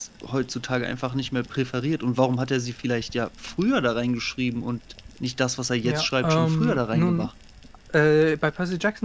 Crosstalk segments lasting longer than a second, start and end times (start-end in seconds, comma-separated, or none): 5.8-7.3